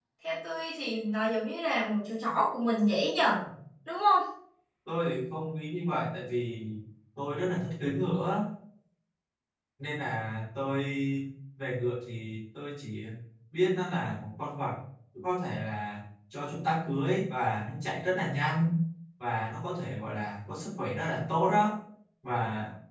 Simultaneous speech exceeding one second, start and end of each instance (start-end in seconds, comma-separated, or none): none